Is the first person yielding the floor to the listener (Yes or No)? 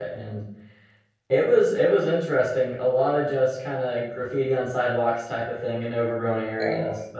No